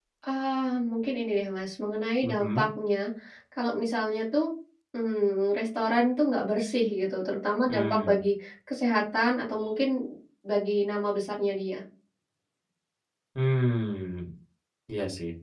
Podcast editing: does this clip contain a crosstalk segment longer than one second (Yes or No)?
No